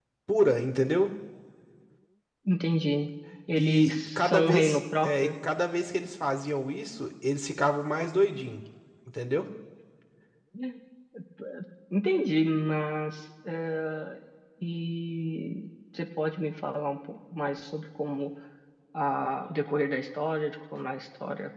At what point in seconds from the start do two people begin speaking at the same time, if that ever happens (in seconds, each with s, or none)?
3.6 s